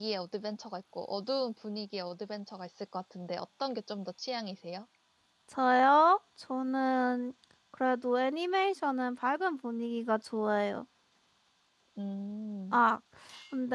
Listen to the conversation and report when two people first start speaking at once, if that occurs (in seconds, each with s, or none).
none